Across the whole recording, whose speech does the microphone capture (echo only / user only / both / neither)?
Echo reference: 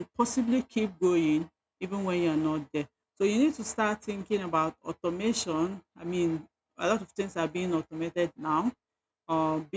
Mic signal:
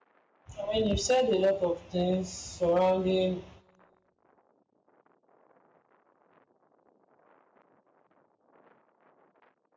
user only